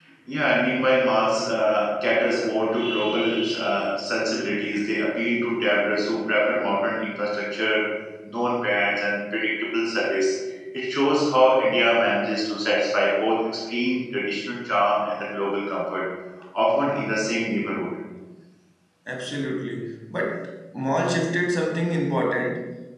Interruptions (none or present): none